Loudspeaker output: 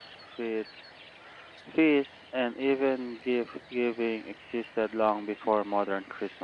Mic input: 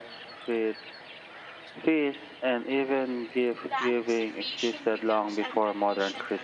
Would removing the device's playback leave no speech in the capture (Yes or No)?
No